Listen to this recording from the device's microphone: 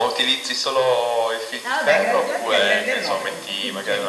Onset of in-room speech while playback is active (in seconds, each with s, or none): 1.6 s